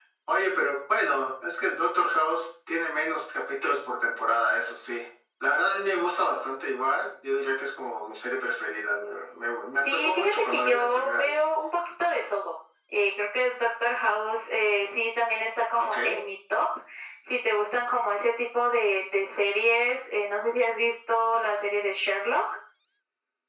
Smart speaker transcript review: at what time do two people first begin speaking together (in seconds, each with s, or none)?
9.8 s